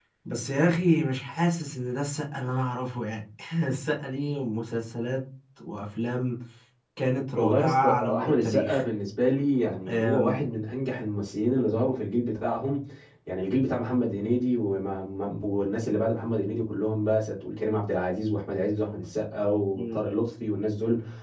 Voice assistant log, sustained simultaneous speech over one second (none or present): present